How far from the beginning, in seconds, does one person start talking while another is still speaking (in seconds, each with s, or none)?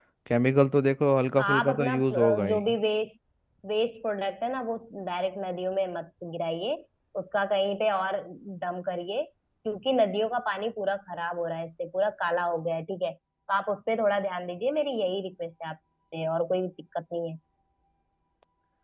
1.4 s